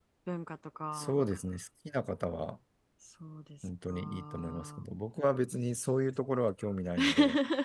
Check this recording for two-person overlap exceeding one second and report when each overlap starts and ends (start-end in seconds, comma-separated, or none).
3.6-4.9